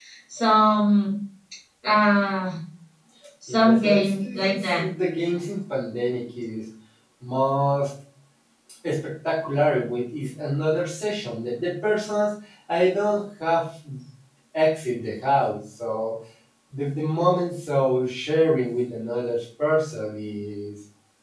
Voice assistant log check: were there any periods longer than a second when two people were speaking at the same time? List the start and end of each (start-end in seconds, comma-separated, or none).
3.5-4.8